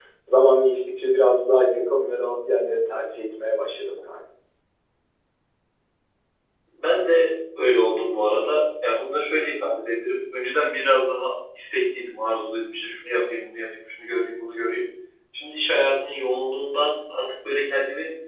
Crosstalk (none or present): none